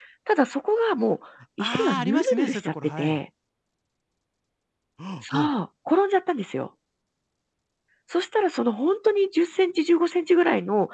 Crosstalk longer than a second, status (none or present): present